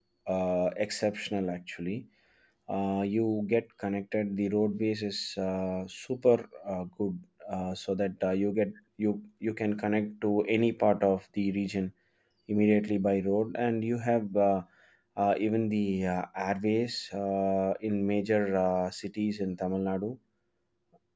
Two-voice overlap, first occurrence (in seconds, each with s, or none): none